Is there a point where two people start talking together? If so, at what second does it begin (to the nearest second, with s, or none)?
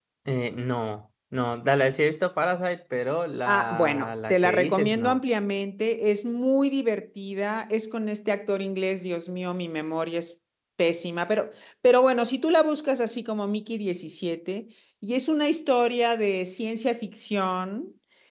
3 s